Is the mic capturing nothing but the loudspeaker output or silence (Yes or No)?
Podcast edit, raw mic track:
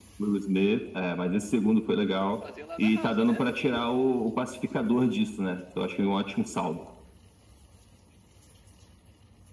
No